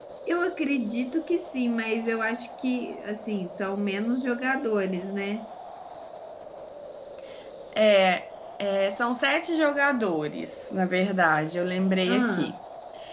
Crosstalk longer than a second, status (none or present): none